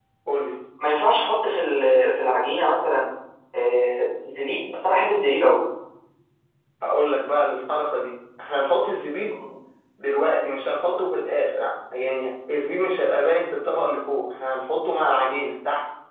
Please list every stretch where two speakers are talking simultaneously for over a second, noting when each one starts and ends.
none

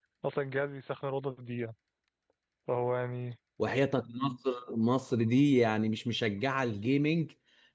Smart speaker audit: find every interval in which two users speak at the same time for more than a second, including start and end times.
none

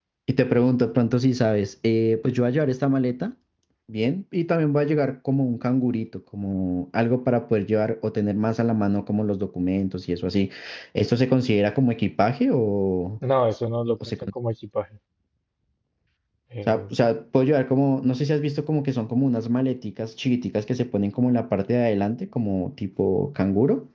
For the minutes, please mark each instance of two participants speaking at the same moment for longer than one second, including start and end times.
none

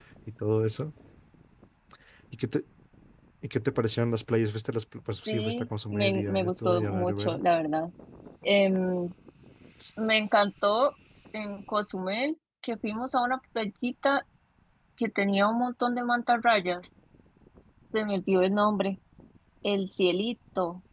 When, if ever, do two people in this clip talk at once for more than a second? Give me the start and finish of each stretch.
5.3-7.4

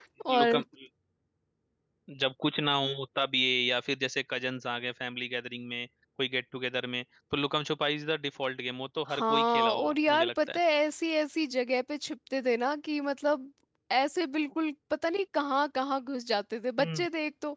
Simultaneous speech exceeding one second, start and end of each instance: 9.1-10.6

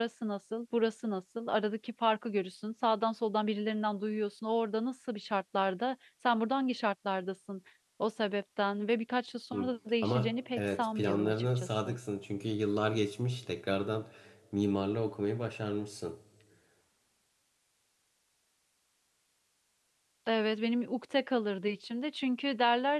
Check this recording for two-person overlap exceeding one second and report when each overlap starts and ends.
10.0-12.0

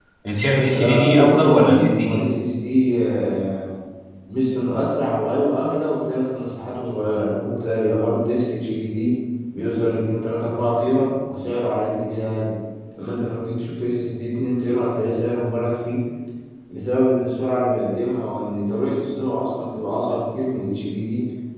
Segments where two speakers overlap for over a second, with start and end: 0.7-2.2

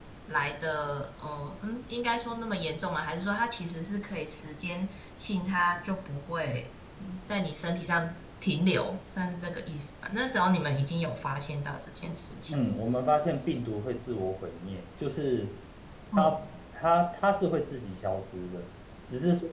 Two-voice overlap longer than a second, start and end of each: none

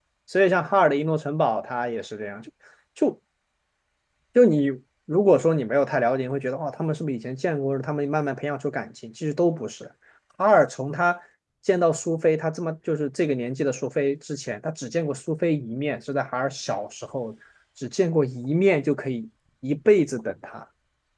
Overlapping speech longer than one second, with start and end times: none

